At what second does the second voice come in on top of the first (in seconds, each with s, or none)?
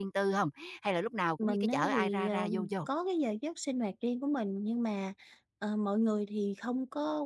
1.4 s